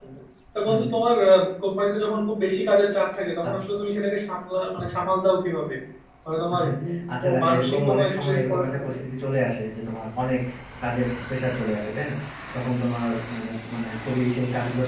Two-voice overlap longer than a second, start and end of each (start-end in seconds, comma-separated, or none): 7.2-9.0